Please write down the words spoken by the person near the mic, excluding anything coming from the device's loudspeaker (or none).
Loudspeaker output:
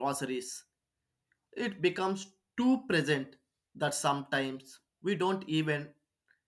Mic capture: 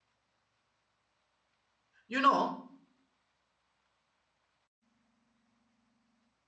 you know